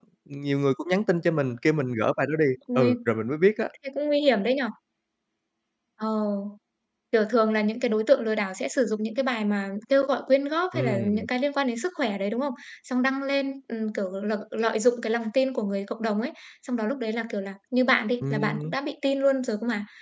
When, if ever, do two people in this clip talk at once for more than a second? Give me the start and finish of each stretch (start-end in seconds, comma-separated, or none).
none